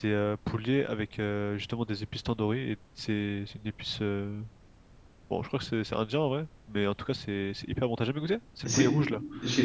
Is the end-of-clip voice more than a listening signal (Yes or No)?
Yes